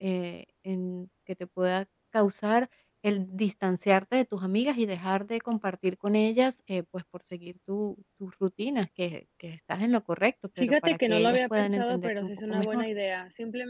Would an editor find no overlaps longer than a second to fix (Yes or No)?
No